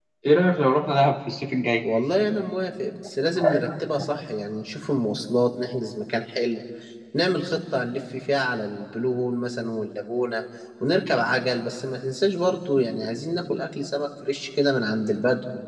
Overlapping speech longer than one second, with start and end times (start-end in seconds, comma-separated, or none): none